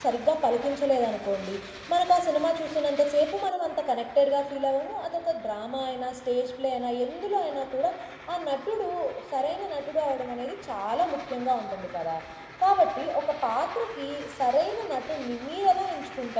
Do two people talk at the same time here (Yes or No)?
No